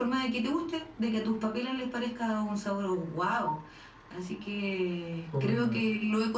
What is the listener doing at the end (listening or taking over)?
listening